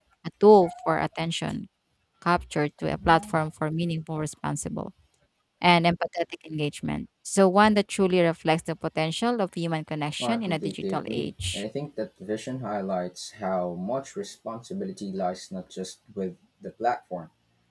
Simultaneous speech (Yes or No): Yes